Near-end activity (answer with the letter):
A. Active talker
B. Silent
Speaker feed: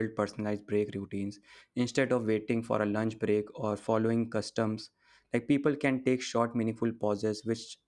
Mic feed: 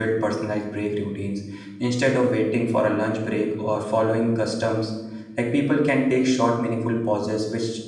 B